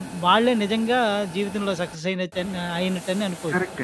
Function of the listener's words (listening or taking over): taking over